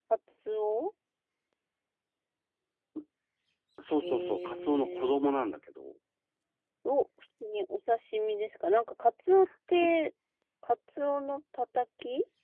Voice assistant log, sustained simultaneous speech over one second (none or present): present